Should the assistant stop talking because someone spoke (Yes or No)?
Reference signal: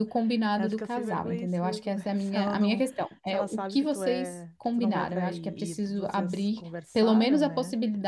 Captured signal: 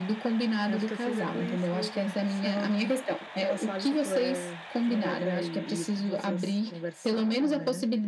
No